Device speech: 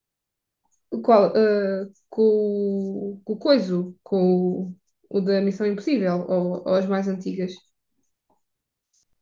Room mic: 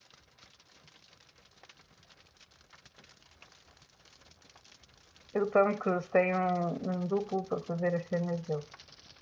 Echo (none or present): none